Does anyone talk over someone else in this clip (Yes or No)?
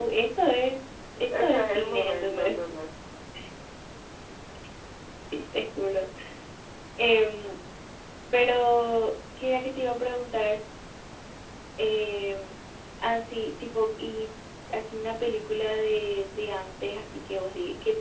Yes